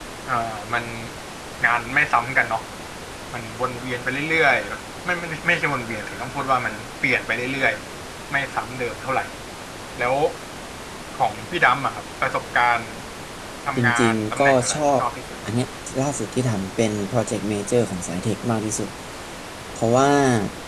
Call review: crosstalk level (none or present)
present